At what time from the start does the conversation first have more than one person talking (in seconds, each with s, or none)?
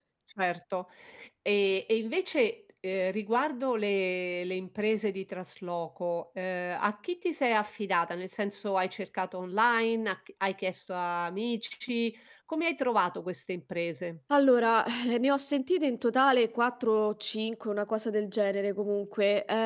none